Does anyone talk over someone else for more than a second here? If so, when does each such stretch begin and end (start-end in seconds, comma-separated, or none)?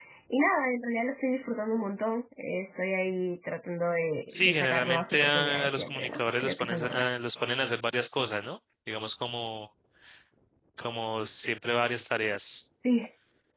4.3-7.1